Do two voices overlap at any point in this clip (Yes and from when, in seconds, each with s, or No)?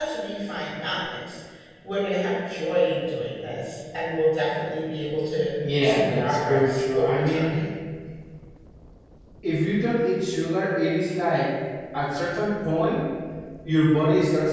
Yes, from 5.6 s